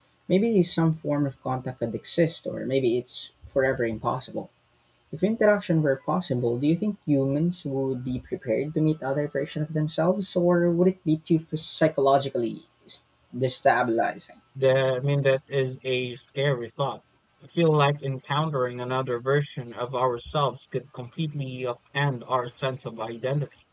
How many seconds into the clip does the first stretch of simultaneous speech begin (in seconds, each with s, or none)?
none